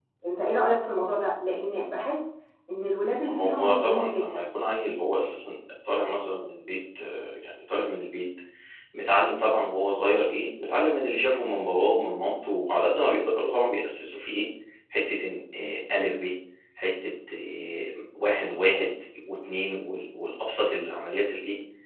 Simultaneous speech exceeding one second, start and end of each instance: 3.2-4.4

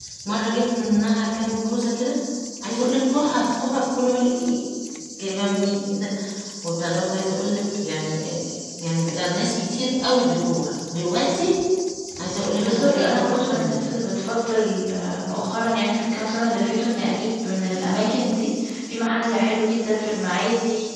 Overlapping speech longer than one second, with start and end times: 12.6-13.9

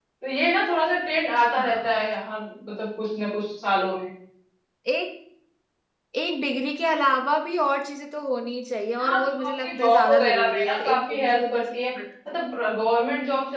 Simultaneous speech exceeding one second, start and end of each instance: 9.0-11.8

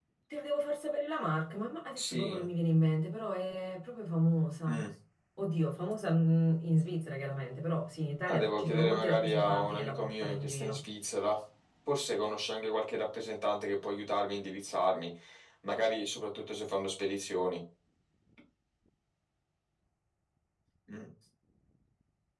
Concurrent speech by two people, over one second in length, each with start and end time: 8.3-10.8

